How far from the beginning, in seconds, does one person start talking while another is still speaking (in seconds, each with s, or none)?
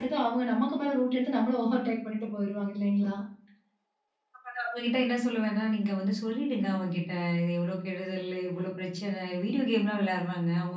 none